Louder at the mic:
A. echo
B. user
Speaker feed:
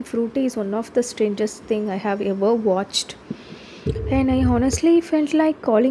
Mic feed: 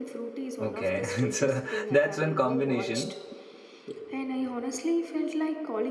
B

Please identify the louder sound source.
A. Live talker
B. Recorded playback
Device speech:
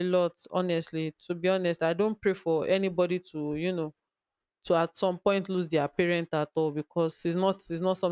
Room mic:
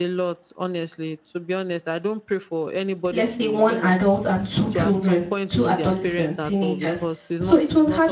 A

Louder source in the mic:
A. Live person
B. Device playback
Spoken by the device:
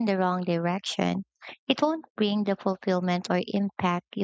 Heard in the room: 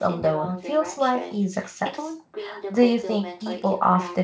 A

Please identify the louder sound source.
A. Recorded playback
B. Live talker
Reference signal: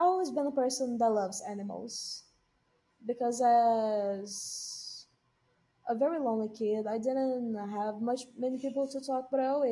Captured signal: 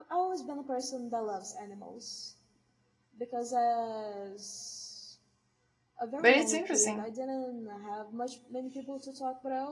B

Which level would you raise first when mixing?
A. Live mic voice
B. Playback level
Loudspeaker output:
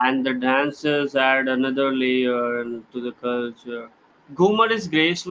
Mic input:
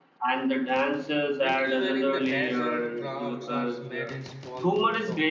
A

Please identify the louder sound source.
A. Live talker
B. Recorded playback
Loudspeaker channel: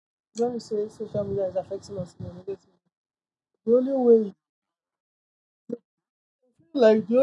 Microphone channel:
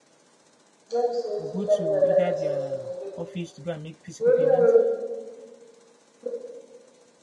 B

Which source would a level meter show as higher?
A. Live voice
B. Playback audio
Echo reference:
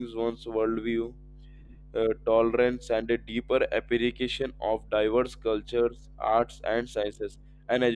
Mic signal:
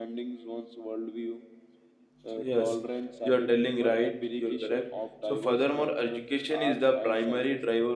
A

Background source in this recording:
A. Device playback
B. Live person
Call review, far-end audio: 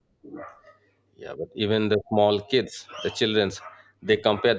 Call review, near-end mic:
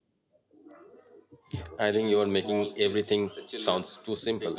A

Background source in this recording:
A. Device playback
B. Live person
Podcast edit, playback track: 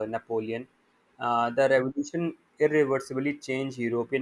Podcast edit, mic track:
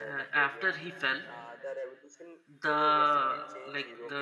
A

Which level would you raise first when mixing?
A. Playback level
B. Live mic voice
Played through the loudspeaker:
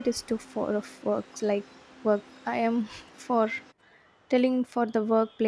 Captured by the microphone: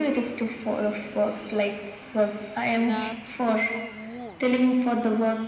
B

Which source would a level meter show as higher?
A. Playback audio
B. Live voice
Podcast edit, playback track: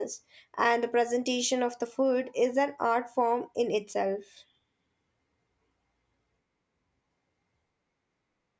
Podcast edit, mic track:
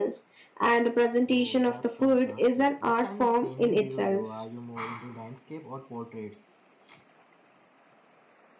A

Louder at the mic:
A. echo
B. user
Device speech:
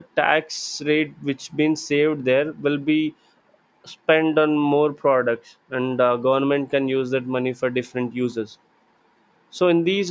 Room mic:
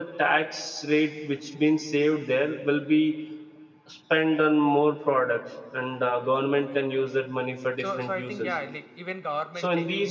A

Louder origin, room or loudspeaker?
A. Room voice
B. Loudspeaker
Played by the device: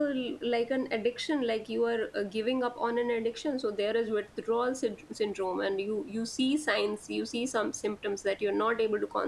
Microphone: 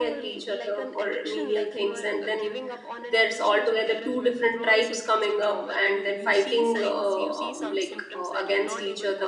A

